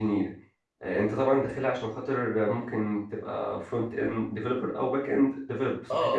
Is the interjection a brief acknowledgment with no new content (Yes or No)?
No